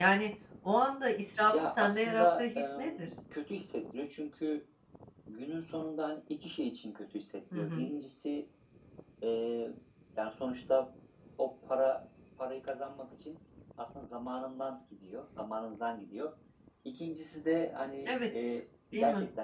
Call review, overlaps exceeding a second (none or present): present